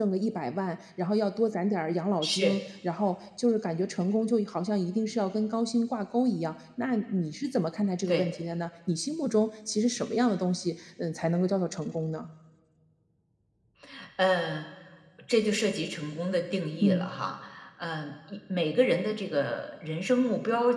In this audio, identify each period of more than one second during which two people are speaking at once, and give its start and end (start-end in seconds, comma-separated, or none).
none